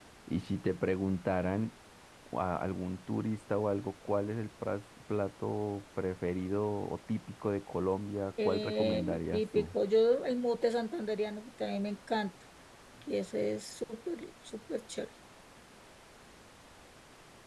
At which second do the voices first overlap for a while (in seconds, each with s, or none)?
8.4 s